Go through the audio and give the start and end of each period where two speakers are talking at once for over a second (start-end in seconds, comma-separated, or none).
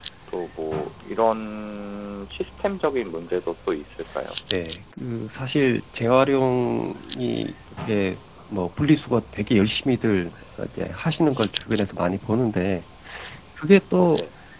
none